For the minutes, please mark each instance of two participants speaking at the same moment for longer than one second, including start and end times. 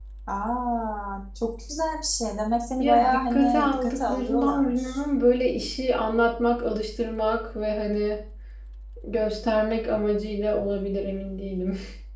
2.8-5.0

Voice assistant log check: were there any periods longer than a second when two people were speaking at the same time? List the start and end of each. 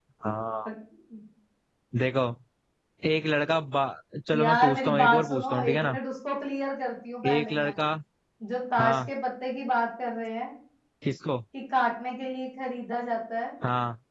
4.3-6.0

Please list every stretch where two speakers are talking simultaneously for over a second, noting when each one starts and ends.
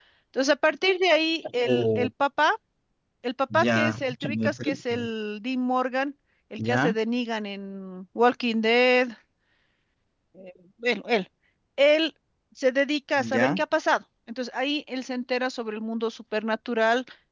3.5-5.0

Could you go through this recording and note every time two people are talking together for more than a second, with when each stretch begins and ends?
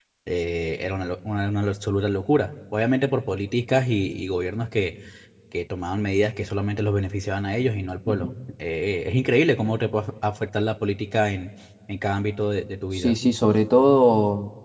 none

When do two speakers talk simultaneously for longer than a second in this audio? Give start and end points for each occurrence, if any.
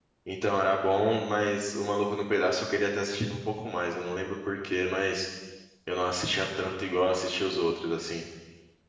none

